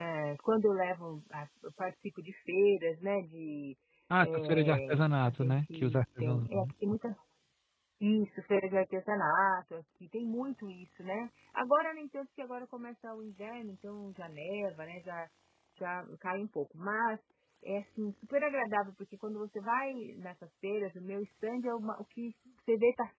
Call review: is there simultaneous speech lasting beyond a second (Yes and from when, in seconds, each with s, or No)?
Yes, from 4.2 s